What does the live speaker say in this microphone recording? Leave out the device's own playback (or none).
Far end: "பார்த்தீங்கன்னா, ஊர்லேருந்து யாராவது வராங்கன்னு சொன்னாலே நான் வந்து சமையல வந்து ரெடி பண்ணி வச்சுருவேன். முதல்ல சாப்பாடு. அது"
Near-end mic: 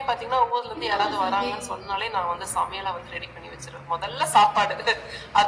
இன்னொரு சந்தேகம்.